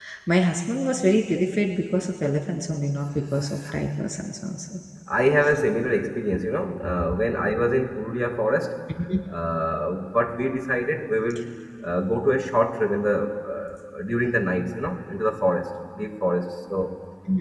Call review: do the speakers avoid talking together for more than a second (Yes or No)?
Yes